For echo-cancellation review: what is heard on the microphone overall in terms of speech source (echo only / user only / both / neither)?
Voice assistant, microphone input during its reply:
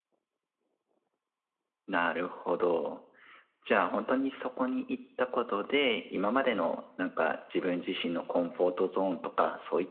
echo only